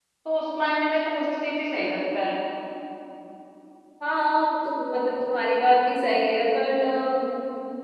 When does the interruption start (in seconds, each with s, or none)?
none